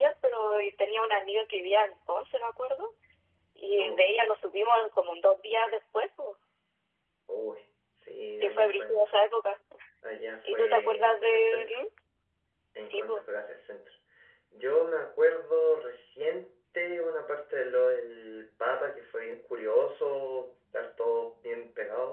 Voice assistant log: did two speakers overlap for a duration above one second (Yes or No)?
Yes